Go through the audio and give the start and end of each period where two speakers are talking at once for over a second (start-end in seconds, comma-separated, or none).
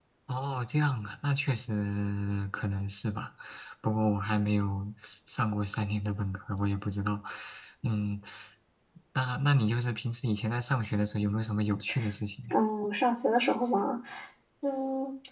none